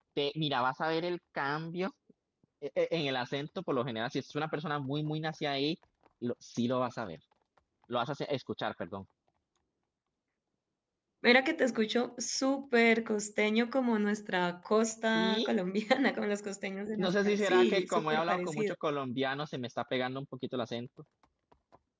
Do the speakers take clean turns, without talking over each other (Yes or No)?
No